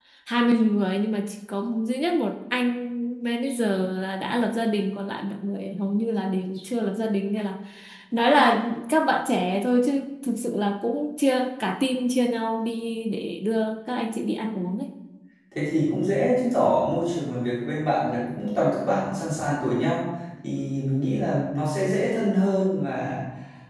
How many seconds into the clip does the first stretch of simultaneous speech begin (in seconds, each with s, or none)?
none